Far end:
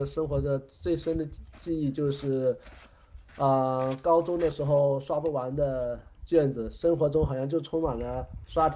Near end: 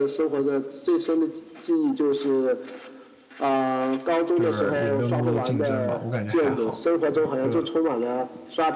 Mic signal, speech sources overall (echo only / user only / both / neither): both